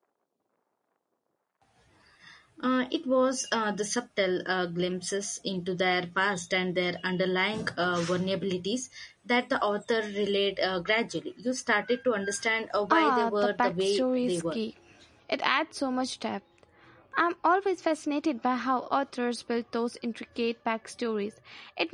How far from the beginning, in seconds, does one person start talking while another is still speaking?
12.7 s

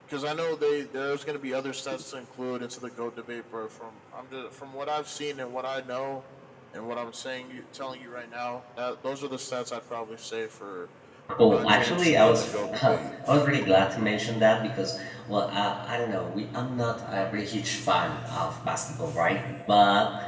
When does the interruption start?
11.4 s

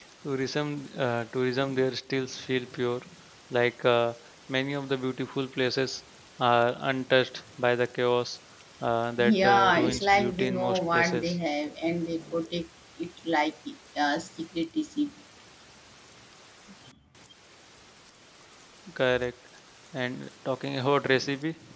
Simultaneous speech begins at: 9.2 s

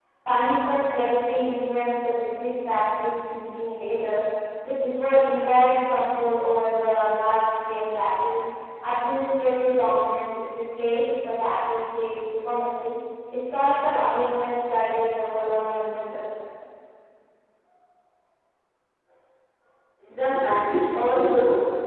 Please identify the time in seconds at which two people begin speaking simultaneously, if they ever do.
none

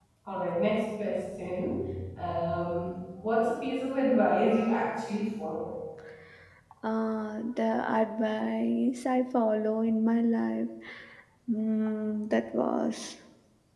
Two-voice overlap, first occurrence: none

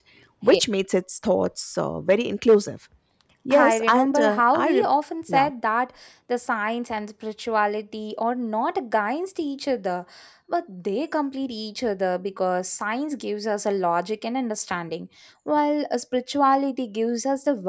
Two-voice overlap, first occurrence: 3.5 s

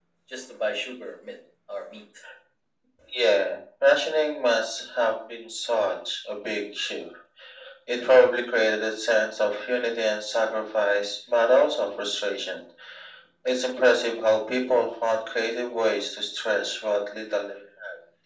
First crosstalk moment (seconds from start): none

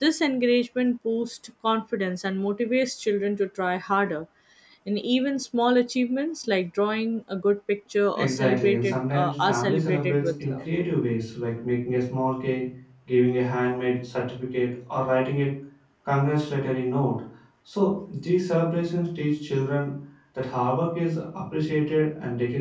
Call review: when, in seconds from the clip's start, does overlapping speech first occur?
8.2 s

